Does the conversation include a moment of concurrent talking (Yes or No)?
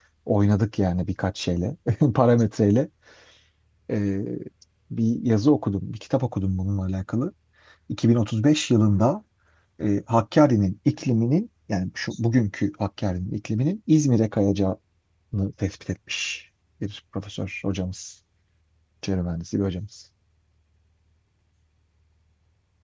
No